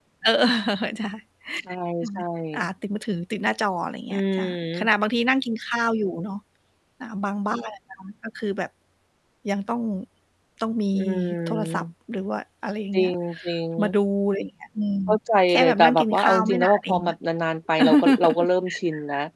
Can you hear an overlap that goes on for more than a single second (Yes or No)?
Yes